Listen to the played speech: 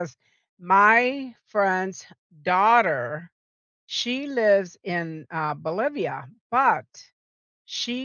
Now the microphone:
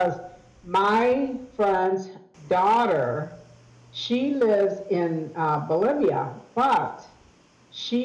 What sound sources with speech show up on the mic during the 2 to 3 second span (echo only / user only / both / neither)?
echo only